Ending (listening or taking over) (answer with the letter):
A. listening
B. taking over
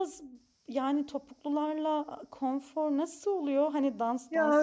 B